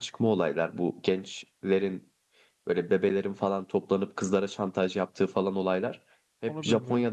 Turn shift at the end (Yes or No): No